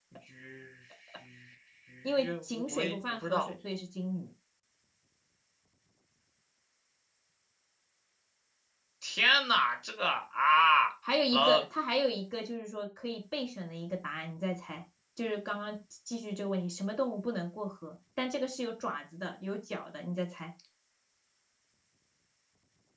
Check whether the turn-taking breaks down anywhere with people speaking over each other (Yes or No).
Yes